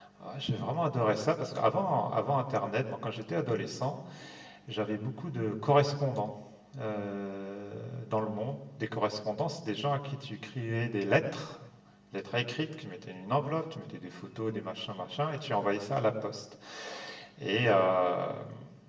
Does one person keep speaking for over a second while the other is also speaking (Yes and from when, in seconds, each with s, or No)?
No